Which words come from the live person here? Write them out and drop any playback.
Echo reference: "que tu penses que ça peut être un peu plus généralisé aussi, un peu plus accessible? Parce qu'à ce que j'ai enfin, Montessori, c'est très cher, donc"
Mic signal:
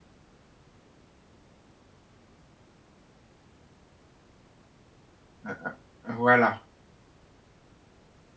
Hein hein. Voilà

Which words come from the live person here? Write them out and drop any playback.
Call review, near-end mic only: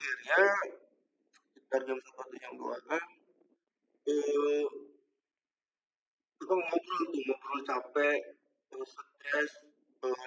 none

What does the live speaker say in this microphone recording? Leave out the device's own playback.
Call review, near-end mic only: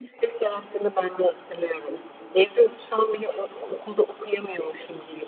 none

